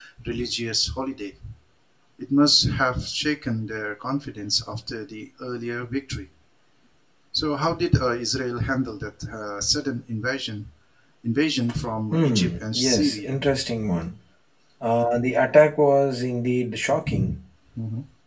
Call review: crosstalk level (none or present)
present